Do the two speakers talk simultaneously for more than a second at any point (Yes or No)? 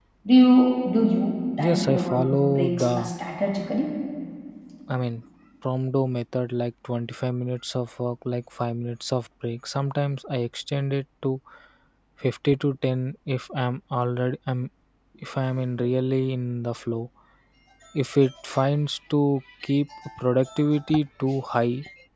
Yes